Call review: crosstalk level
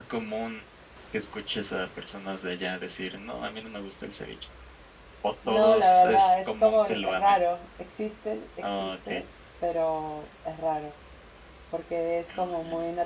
present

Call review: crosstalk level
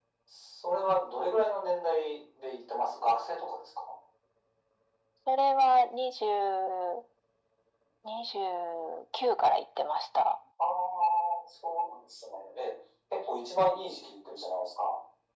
none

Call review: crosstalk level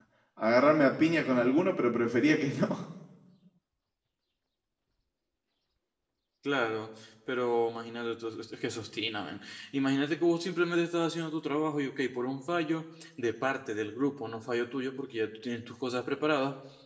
none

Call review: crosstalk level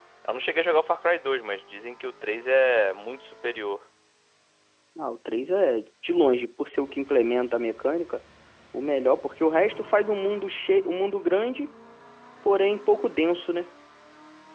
none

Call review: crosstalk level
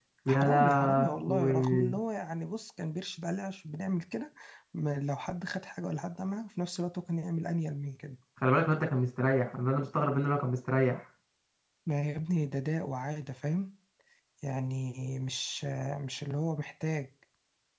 present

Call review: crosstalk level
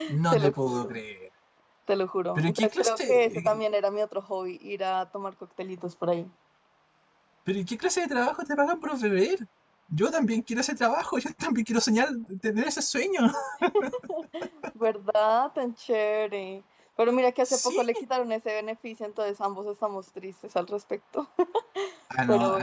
present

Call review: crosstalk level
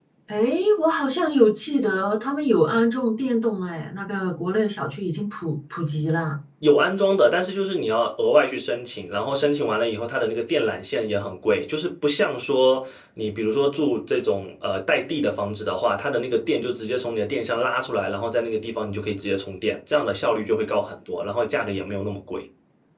none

